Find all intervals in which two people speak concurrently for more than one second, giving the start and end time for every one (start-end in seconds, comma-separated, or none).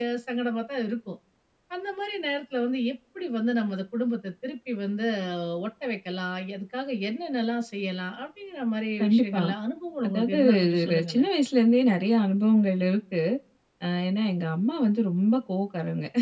10.0-11.3